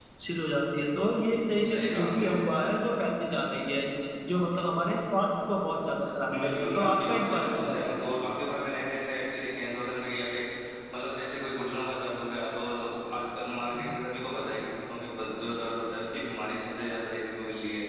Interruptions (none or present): present